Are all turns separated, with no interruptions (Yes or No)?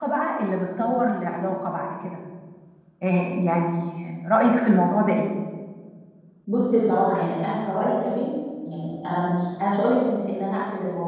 Yes